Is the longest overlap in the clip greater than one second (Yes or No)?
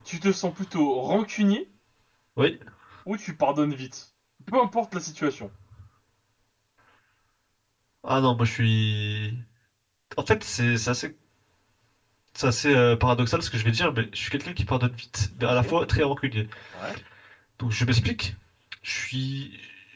No